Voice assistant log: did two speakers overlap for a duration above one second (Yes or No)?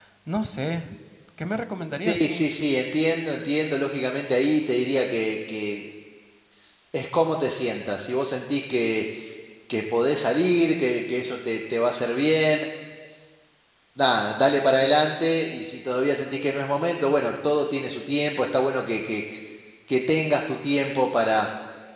No